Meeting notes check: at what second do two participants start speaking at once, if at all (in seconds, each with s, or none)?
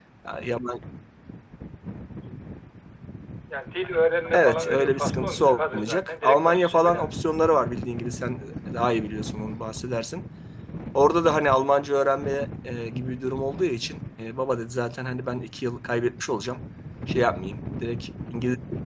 4.3 s